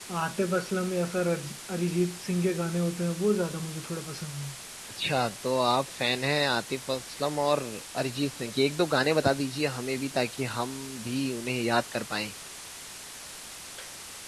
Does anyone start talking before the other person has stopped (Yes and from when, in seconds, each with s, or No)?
No